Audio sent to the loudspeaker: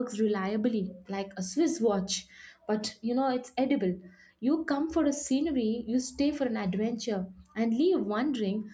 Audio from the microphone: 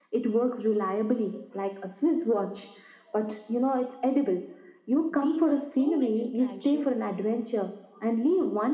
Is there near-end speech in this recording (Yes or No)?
Yes